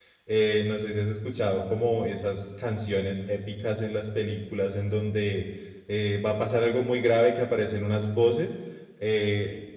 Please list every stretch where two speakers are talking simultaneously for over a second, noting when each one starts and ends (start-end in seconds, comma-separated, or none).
none